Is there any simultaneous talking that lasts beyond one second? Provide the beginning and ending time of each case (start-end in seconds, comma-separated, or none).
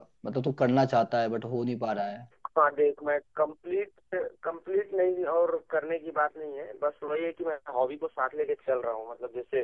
none